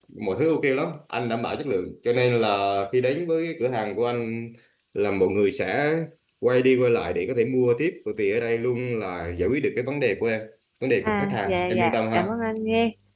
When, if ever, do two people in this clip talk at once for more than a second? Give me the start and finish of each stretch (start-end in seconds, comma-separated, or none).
11.0-12.3